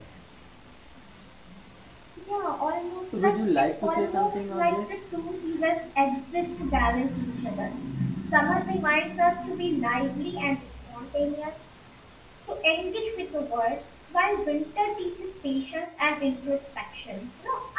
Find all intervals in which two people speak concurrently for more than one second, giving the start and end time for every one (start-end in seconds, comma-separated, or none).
3.1-4.9